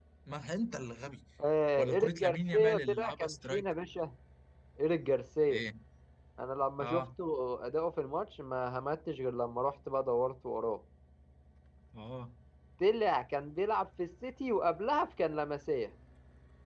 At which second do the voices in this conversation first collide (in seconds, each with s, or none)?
1.8 s